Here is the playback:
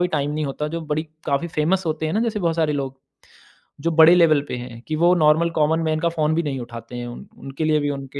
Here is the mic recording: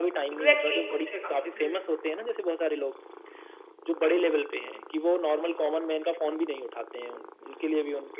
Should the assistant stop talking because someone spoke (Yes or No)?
Yes